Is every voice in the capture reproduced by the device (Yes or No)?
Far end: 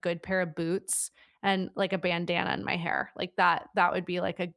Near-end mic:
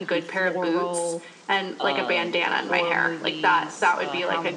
No